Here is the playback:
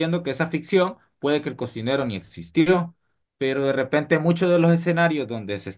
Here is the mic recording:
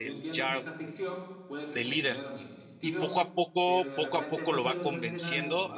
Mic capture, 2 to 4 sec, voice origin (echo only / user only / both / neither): both